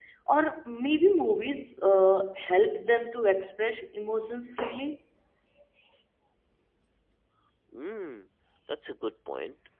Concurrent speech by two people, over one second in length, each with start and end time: none

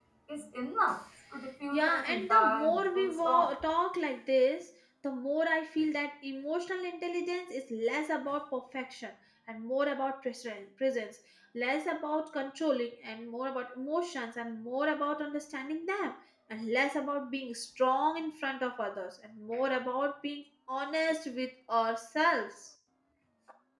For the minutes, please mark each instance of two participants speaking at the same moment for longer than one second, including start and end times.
1.7-3.5

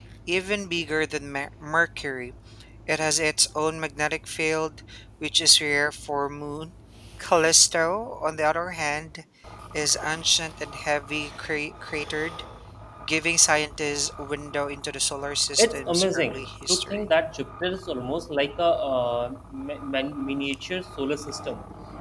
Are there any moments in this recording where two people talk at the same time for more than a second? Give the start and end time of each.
15.6-17.0

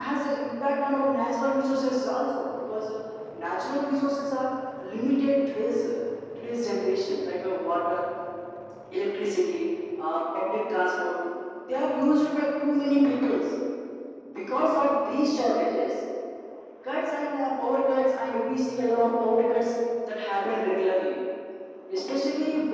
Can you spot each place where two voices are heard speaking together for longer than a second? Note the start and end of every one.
none

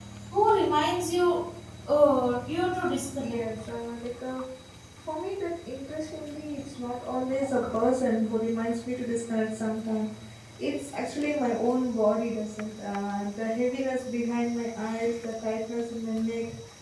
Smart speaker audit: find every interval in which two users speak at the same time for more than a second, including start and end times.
none

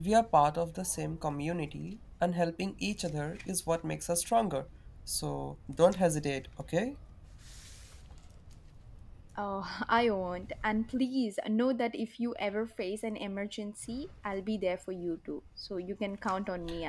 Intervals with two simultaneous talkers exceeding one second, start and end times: none

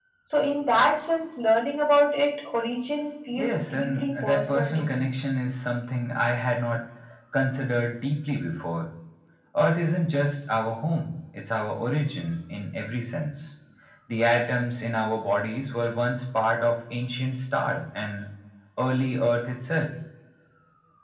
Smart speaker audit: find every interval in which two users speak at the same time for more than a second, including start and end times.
3.4-5.1

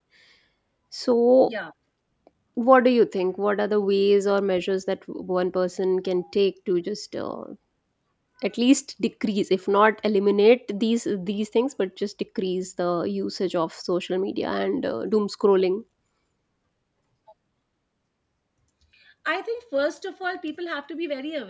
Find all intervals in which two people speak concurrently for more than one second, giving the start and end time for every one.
none

